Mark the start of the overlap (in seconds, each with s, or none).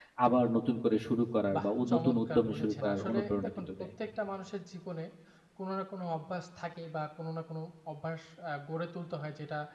1.5 s